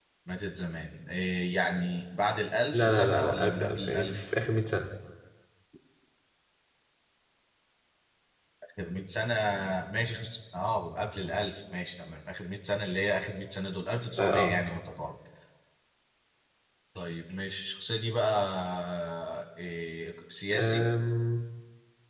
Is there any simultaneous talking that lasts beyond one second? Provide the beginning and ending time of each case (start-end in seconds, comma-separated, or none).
2.7-4.3